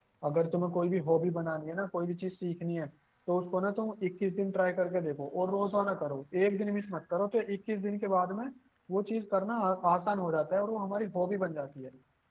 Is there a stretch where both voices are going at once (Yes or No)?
No